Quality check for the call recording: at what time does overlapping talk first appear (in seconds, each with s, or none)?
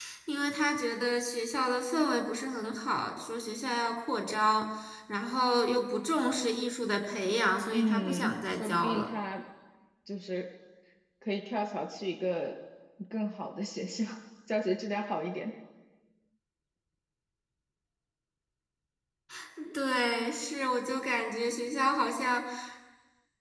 7.7 s